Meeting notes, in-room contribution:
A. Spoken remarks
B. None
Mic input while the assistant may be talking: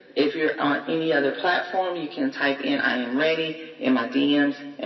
B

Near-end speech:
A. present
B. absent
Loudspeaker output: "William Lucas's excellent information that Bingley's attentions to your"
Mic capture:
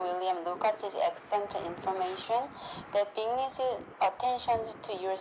B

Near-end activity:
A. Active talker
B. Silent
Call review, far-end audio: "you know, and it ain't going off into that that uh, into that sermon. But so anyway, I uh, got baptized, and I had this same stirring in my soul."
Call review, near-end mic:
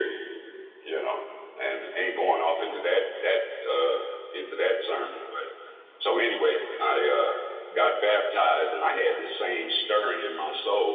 B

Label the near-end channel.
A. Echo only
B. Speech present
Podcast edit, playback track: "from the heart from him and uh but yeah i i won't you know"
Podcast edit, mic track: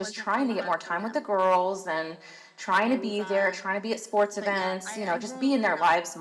B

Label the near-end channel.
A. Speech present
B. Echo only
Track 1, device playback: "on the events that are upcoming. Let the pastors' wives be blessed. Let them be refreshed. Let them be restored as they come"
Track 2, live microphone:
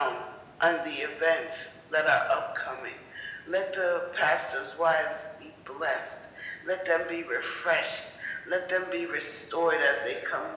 B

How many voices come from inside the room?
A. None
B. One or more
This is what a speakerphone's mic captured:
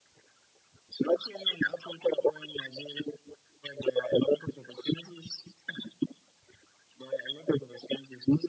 A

